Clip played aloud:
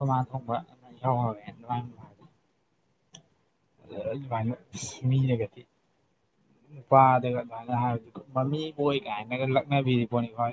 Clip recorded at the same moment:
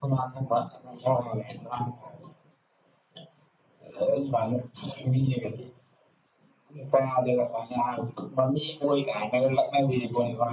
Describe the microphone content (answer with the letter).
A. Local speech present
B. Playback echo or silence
B